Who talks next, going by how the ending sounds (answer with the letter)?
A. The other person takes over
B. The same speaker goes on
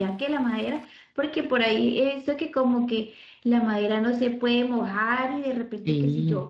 B